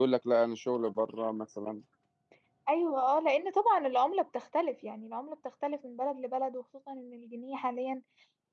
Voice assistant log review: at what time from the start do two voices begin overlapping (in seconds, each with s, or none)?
none